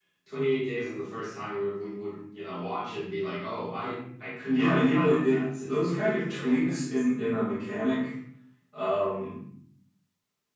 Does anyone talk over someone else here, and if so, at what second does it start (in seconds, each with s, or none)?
4.4 s